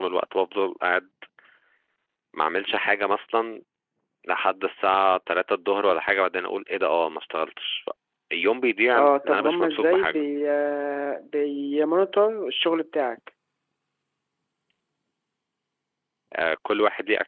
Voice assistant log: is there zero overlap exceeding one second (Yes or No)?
No